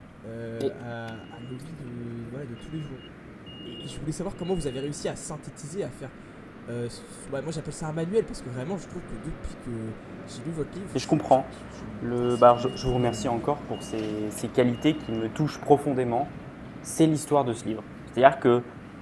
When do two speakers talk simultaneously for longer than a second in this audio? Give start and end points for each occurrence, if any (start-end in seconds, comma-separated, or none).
12.0-13.4